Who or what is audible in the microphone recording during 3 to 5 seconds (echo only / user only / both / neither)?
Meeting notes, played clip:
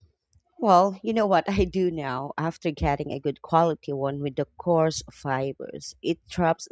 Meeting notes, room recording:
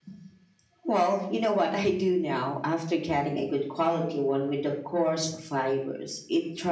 echo only